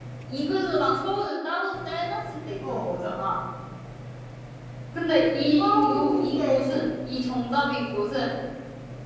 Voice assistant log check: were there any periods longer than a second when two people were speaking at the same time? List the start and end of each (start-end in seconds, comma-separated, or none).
5.6-6.9